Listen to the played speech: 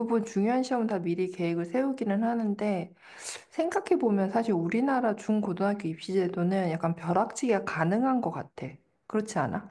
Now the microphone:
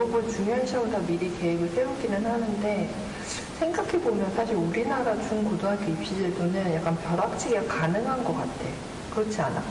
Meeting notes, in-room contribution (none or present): none